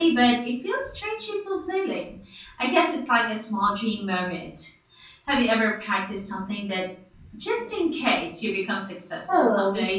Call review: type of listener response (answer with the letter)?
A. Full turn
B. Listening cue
A